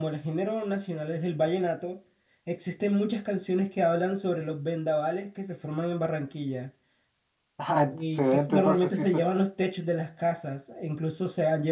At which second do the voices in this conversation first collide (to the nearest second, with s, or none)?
8 s